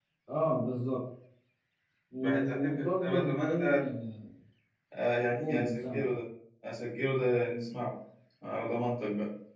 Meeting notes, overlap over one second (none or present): present